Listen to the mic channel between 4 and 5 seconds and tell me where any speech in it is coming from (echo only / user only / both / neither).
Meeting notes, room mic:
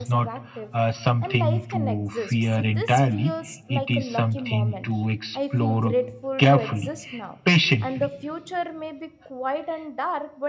both